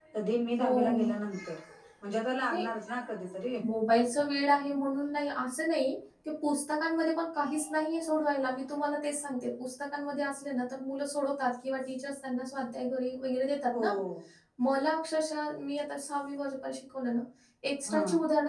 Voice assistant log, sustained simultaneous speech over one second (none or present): none